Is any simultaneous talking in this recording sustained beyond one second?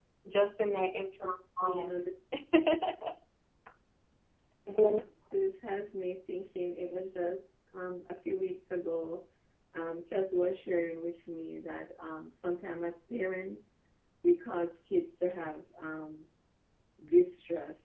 No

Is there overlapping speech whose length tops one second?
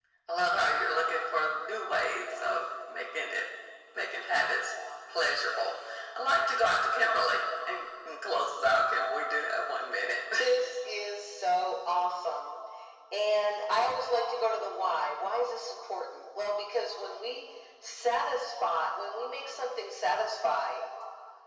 No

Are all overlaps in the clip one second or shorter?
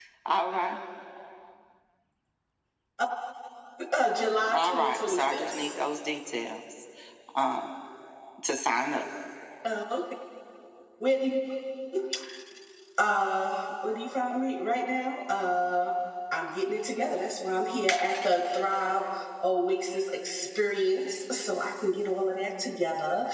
No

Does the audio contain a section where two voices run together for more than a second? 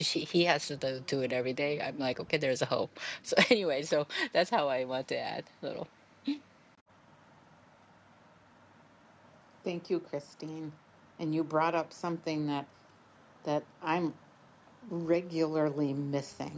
No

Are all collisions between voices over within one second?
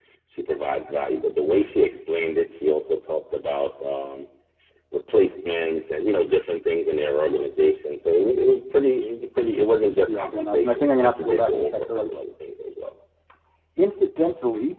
No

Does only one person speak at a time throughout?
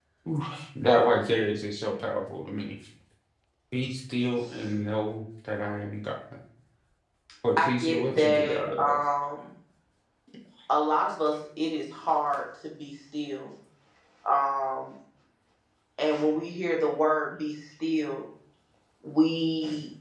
No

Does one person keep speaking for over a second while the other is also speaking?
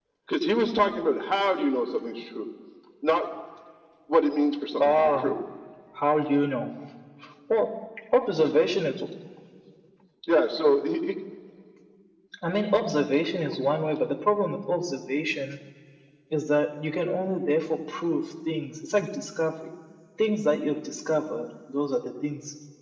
No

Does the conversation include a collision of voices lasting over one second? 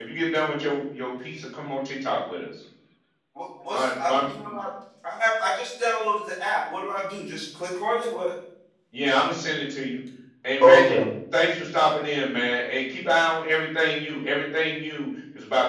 No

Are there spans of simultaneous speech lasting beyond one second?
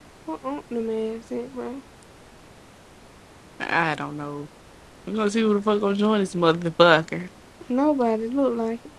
No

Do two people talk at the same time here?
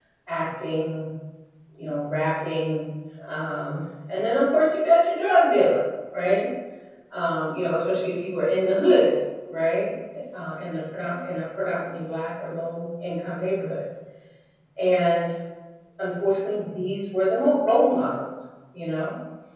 No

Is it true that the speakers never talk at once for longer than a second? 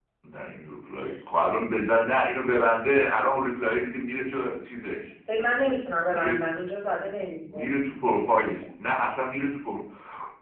Yes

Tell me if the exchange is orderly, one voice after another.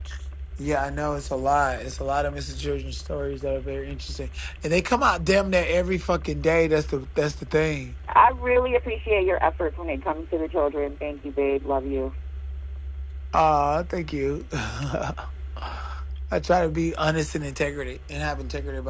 Yes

